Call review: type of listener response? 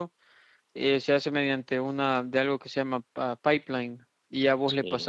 listening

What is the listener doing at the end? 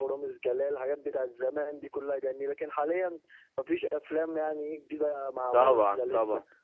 taking over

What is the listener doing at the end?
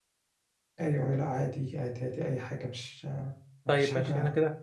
taking over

